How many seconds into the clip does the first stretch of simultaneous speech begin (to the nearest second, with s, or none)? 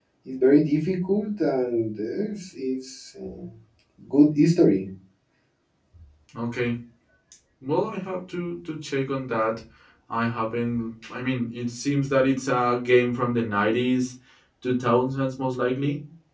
none